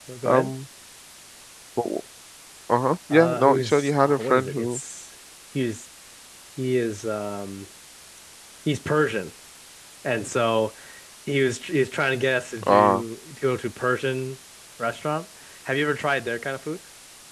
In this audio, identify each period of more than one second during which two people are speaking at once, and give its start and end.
3.1-4.8

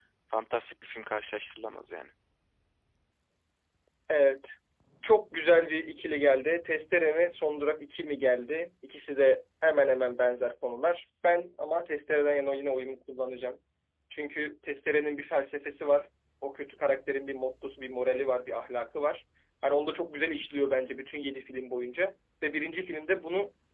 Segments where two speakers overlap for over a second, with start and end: none

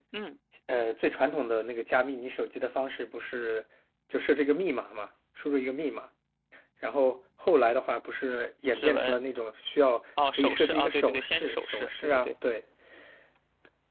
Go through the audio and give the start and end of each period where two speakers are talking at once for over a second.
10.3-12.3

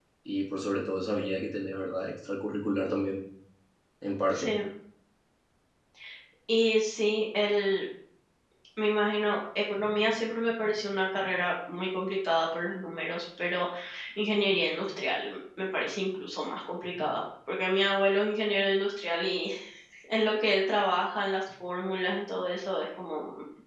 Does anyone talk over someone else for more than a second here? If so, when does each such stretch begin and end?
none

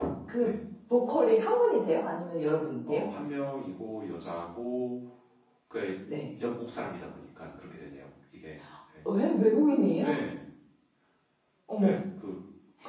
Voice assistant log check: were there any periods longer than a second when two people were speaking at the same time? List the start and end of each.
none

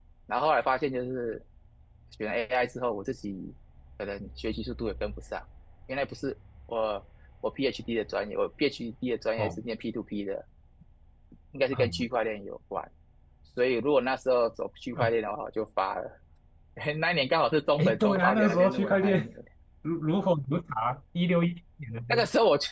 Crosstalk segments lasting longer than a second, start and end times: 17.8-19.3

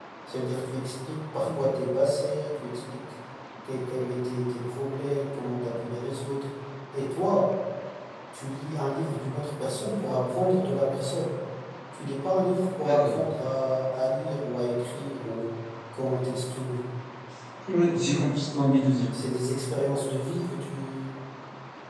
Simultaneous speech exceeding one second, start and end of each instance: none

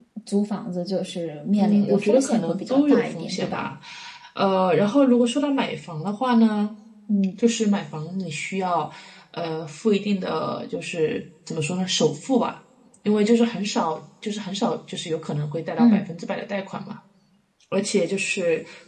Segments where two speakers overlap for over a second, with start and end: 1.6-3.7

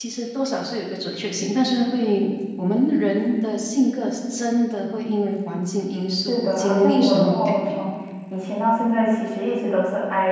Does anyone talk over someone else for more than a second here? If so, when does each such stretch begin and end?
6.3-7.8

